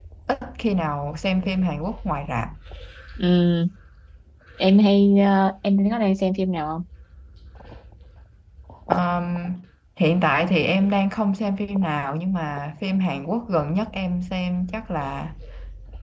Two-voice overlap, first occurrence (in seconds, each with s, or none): none